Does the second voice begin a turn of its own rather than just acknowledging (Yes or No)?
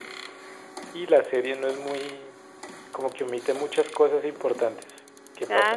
Yes